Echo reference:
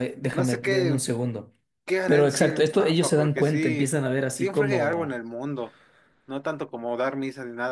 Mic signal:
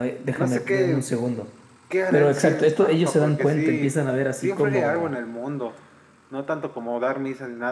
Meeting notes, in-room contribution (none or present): none